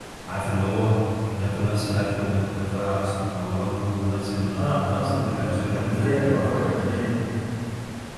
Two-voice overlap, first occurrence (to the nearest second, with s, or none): 5 s